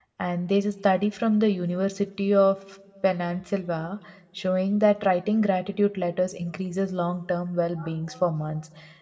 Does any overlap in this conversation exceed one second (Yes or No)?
No